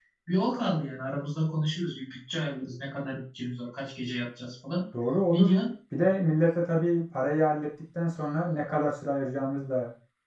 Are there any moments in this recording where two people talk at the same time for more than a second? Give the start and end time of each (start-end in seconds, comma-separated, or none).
none